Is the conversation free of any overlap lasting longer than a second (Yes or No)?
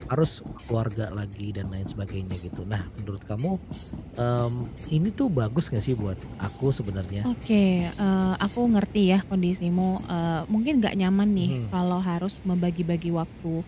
Yes